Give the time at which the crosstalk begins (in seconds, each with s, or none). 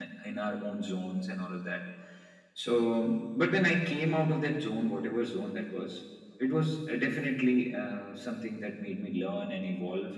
none